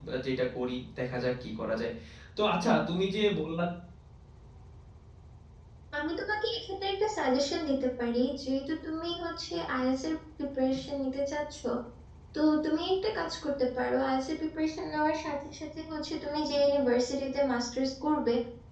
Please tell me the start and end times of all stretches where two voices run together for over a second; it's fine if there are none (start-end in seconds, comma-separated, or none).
none